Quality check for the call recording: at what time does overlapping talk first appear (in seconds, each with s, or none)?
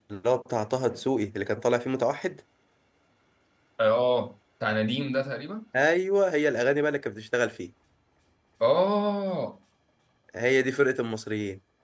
none